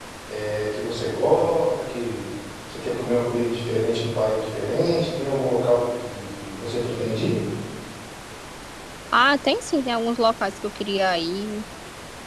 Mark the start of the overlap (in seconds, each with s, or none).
none